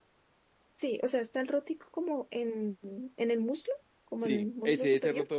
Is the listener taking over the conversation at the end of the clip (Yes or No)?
Yes